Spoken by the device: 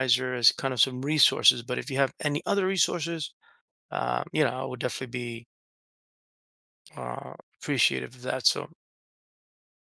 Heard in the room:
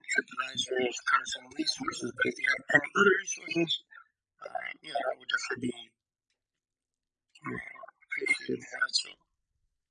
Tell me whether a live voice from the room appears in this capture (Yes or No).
No